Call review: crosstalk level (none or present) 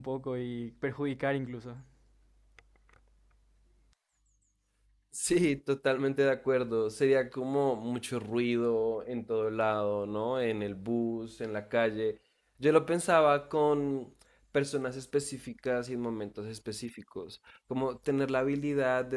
none